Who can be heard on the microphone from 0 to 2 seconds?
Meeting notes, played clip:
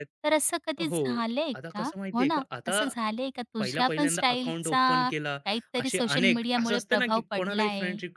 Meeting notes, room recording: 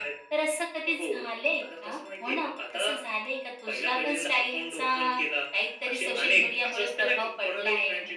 echo only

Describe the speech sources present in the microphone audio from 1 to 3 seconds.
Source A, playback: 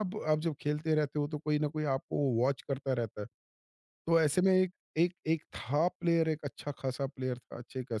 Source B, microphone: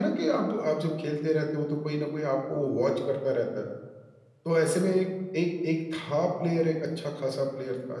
echo only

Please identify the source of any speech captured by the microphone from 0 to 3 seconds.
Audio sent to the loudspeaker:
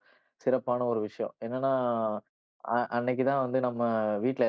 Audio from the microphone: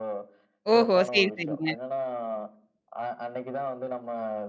both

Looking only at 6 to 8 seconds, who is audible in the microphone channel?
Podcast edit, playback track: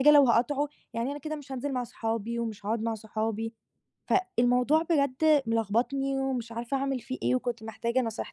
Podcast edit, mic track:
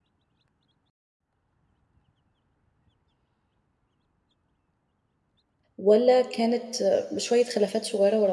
user only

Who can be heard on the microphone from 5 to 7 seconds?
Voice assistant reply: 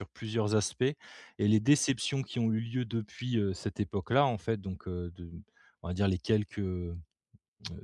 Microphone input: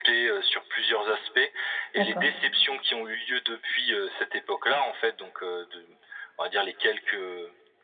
echo only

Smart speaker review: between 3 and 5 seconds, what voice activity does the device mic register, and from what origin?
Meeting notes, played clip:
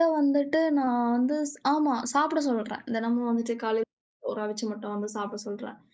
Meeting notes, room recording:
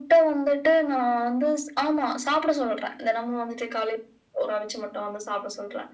echo only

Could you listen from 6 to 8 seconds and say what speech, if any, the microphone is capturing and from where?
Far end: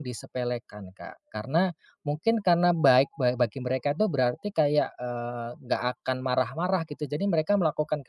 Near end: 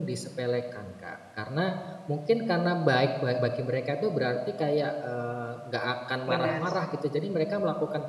both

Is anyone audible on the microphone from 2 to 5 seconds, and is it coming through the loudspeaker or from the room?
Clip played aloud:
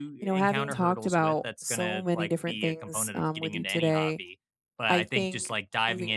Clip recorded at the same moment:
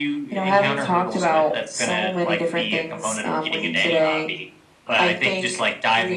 echo only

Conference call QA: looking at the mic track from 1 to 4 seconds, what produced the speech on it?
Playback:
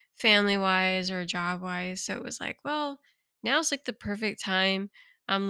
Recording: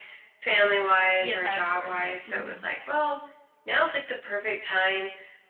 both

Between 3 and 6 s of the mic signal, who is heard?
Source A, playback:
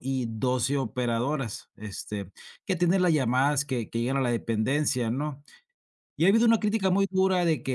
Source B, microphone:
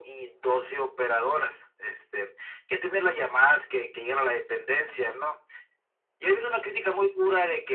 echo only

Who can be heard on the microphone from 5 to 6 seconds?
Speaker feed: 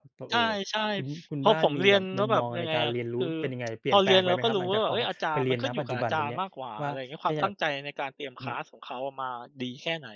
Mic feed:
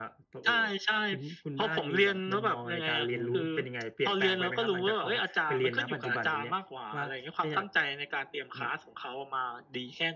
echo only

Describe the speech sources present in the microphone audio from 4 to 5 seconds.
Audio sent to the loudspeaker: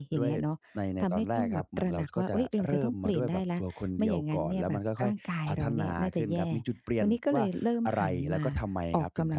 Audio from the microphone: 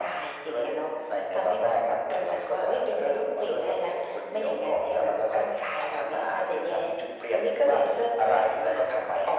echo only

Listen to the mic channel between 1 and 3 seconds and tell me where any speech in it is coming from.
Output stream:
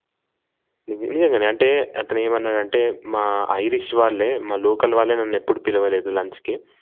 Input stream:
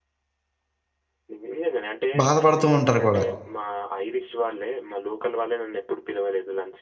both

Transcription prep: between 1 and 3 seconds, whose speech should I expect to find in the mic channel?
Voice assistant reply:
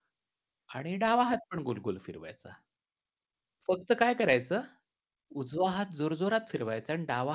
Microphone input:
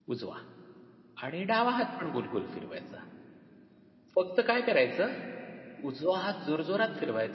echo only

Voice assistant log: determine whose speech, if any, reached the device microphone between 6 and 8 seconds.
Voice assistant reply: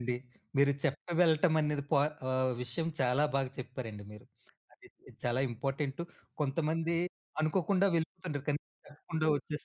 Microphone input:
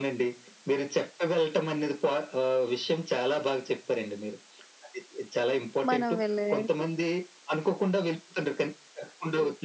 both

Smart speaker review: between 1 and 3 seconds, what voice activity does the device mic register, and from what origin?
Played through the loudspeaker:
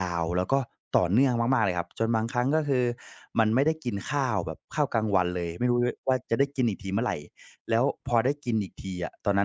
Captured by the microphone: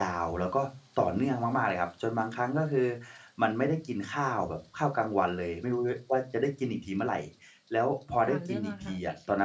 echo only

